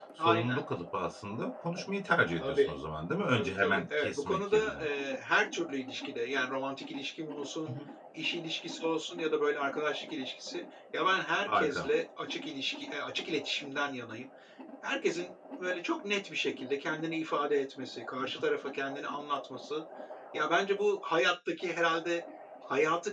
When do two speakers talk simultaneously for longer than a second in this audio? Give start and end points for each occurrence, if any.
3.3-4.8

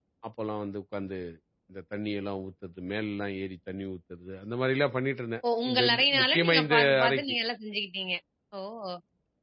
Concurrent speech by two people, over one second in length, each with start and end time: 5.6-7.4

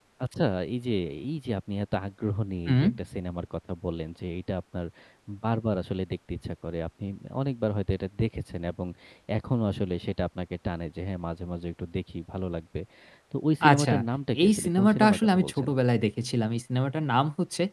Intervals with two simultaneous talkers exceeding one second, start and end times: 14.4-15.7

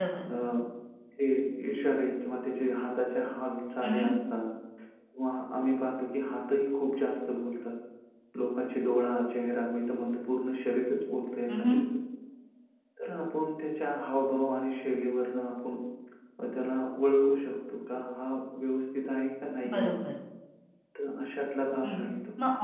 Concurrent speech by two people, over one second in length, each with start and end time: none

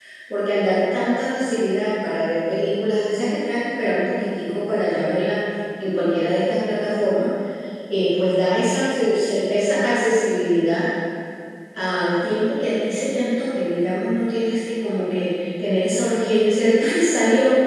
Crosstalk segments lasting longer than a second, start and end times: none

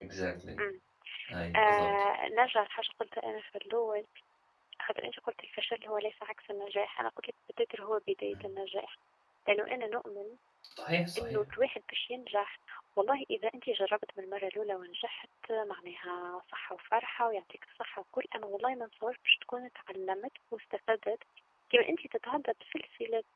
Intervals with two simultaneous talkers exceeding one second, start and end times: none

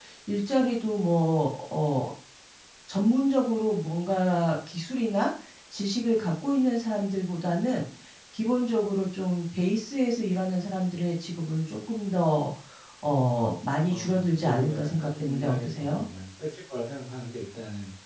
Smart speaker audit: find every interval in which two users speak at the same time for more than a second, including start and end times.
13.9-16.1

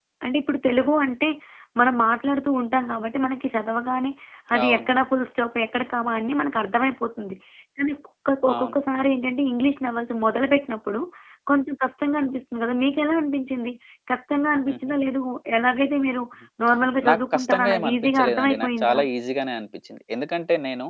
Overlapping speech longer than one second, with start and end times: 17.1-19.0

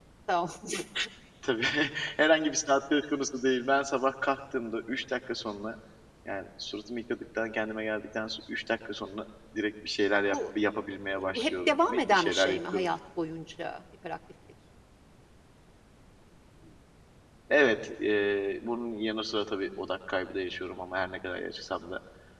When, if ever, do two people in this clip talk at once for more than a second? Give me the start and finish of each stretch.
11.2-12.9

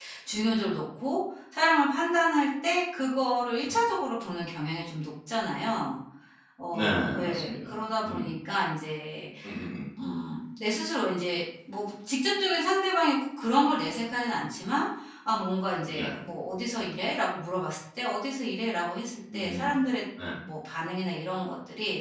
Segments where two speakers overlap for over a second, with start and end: 6.7-8.3

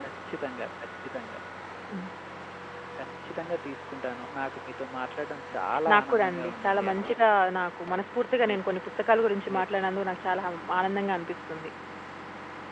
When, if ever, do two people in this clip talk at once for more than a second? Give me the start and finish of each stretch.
5.9-7.2

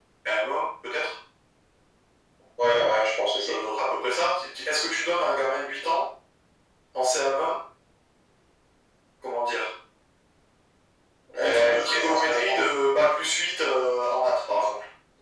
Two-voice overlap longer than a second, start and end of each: 11.4-12.6

